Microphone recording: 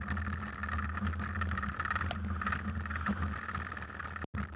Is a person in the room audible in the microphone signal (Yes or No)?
No